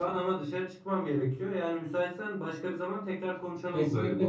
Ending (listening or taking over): taking over